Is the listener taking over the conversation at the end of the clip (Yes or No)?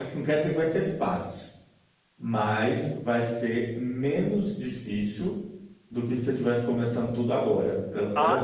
Yes